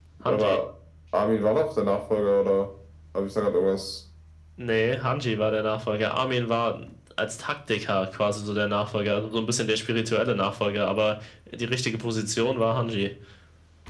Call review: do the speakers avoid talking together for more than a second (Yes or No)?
Yes